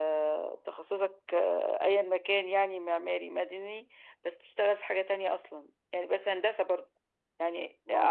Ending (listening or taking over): listening